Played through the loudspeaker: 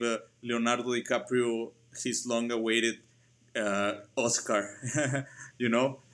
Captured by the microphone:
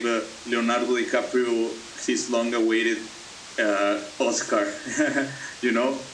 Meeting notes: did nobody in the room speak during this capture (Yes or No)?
Yes